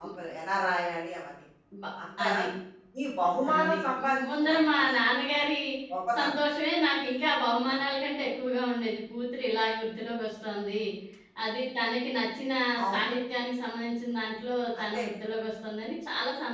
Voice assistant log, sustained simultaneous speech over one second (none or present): present